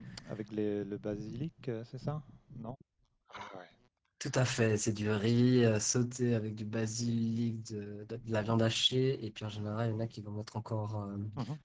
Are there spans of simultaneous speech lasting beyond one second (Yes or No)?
No